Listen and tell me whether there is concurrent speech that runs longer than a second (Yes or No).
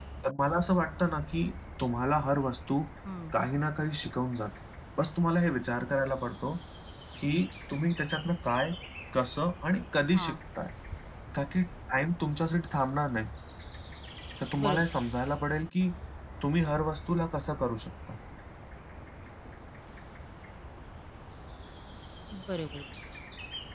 No